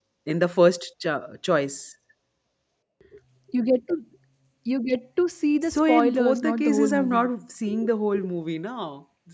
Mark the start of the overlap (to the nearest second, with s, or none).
6 s